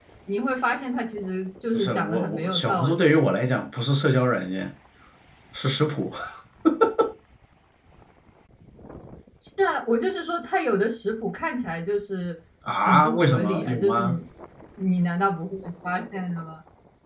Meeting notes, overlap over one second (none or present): present